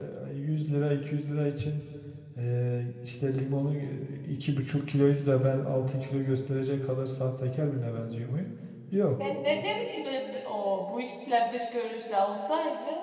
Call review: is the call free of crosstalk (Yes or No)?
Yes